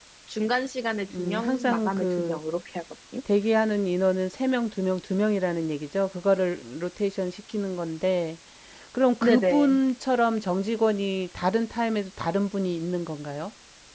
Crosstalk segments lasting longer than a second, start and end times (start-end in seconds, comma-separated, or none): 1.2-2.4